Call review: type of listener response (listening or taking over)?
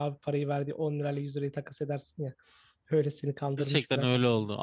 taking over